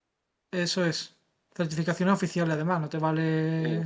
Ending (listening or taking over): listening